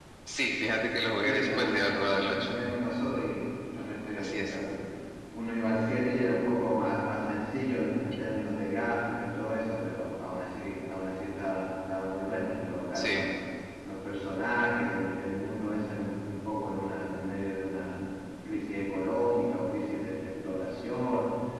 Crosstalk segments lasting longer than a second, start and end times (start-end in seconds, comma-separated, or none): 1.1-2.5